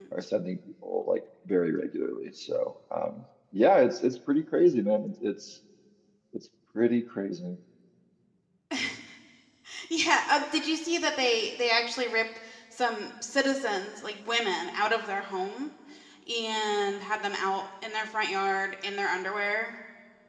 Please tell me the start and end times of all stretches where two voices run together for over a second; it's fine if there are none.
none

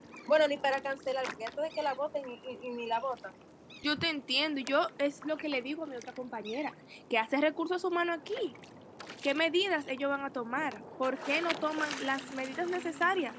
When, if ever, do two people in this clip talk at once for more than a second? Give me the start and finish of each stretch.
none

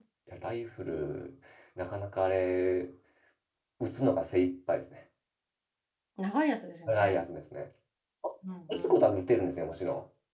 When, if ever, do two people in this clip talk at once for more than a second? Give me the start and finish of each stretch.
none

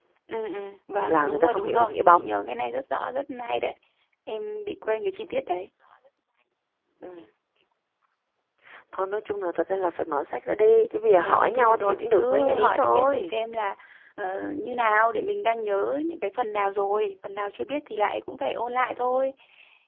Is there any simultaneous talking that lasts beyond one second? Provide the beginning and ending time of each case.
1.1-2.3, 11.2-13.3

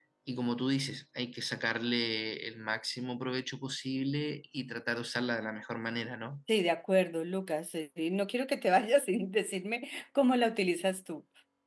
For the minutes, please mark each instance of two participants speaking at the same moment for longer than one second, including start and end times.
none

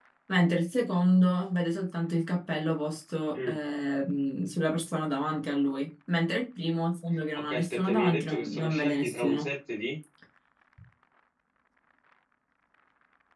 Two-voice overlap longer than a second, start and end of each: 7.4-9.5

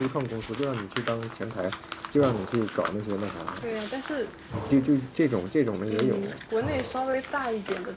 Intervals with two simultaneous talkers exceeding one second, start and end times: none

